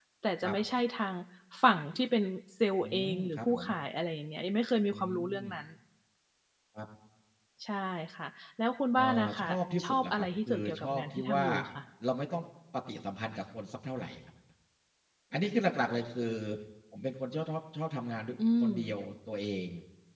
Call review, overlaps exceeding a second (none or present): present